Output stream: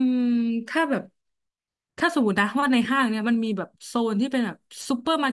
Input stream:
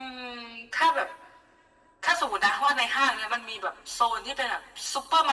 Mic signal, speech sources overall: echo only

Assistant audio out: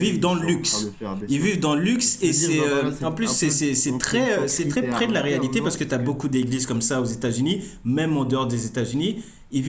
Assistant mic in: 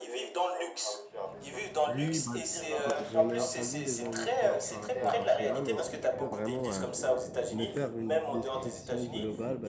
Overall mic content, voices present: both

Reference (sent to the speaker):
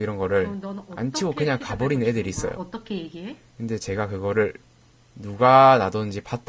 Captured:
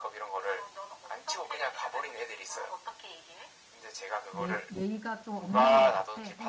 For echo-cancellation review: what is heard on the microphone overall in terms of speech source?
both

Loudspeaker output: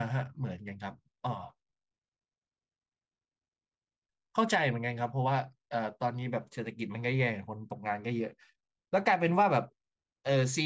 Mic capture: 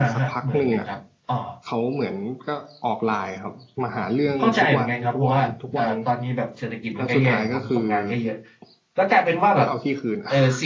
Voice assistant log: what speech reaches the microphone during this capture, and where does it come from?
both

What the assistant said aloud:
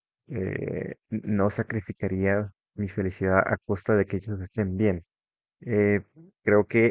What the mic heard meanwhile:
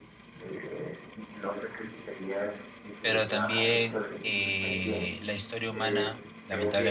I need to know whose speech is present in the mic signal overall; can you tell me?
both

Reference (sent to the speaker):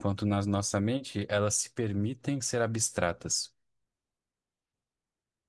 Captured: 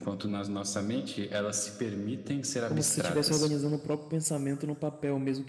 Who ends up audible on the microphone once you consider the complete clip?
both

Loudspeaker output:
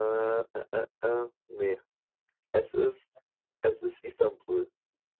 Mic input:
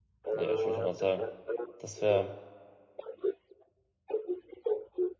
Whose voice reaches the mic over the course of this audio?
both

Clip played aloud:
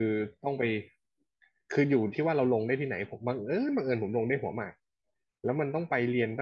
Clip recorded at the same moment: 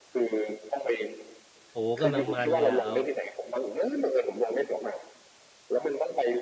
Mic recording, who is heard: both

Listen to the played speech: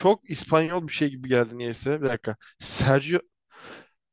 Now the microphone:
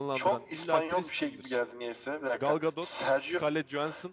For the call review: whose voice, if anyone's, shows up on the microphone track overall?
both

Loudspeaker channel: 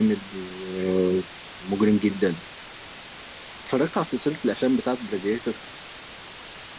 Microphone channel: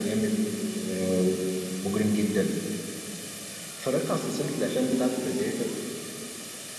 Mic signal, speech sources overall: echo only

